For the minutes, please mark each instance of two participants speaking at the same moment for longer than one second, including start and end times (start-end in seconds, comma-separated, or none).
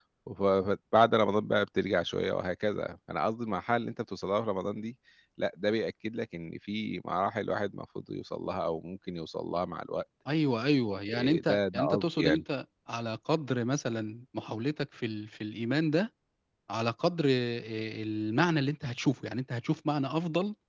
11.1-12.4